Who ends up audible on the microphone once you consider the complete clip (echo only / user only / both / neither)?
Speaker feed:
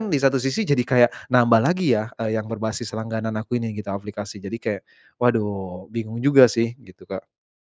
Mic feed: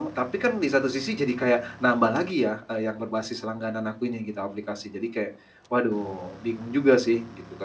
echo only